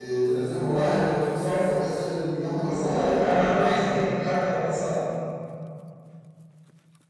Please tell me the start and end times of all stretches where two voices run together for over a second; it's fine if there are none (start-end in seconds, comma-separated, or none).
2.6-4.1